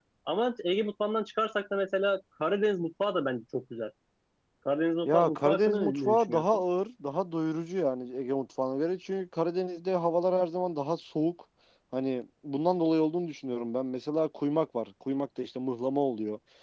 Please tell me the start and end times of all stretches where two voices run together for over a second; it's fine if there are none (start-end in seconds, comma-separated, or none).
5.0-6.6